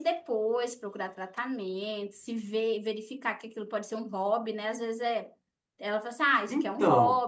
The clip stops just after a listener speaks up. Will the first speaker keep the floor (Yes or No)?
Yes